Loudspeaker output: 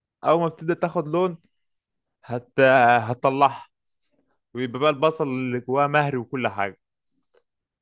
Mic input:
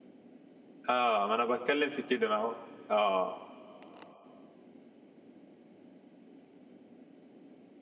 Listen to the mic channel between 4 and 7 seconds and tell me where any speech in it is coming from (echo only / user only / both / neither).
neither